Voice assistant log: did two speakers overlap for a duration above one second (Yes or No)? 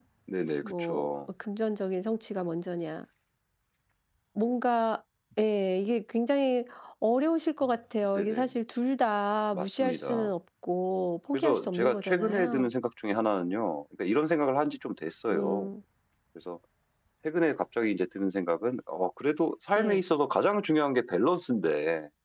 Yes